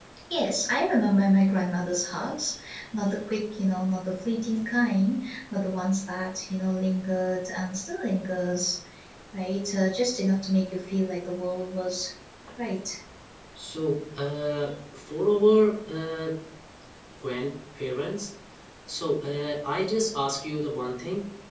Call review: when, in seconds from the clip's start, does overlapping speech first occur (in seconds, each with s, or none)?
none